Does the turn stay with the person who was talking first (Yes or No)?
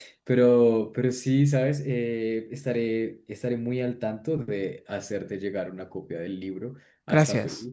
Yes